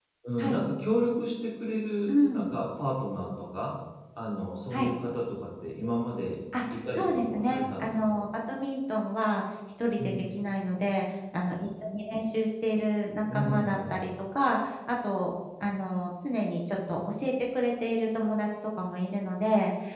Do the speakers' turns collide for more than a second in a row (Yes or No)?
Yes